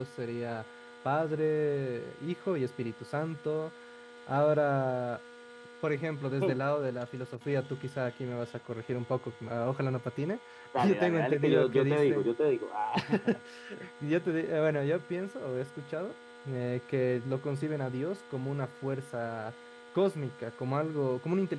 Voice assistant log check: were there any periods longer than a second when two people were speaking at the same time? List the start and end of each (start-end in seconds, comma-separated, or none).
10.8-12.3